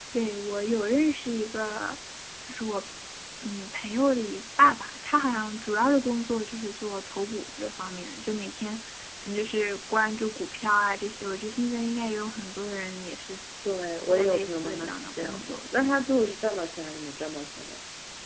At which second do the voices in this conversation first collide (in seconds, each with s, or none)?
14.0 s